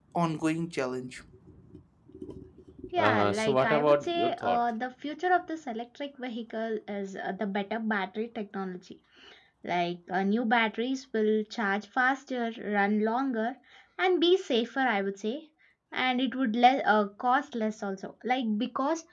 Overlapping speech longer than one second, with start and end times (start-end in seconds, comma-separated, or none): 3.0-4.6